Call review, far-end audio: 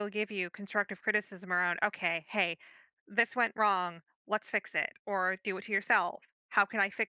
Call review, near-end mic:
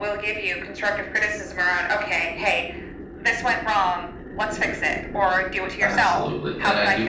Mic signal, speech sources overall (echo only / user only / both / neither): both